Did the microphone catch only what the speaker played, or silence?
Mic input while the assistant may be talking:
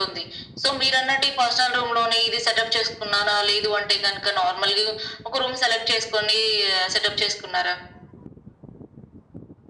Yes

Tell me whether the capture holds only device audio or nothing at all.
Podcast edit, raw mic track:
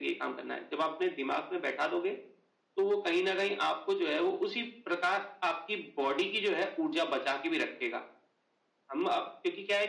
Yes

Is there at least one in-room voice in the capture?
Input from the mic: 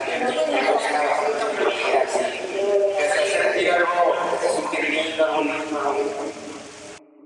No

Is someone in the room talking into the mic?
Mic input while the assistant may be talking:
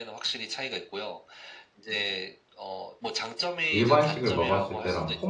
Yes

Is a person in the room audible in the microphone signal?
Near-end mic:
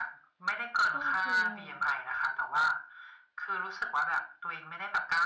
Yes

